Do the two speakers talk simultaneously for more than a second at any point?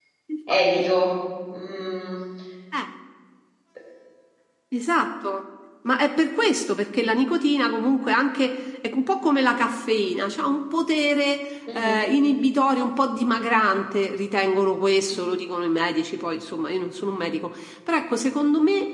No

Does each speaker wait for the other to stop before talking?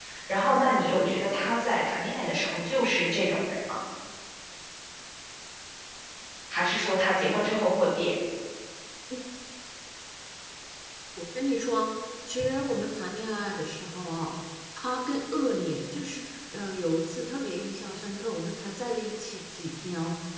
Yes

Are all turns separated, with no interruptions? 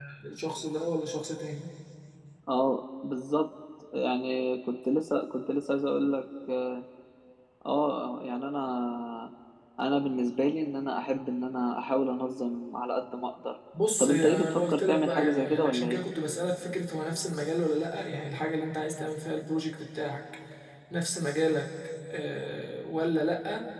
No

